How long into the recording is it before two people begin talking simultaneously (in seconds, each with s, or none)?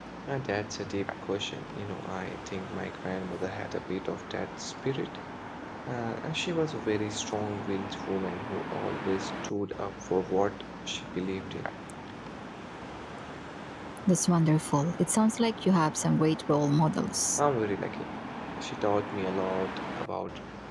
none